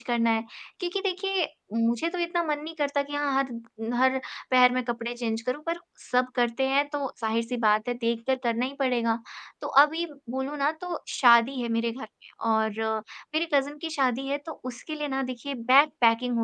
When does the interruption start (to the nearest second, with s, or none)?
none